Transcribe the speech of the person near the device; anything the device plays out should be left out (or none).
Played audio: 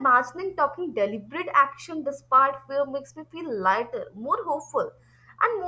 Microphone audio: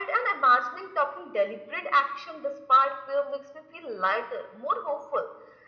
none